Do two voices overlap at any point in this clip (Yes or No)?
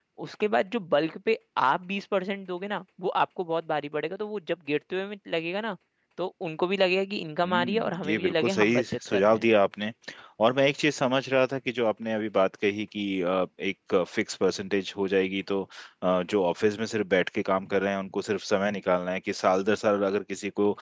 Yes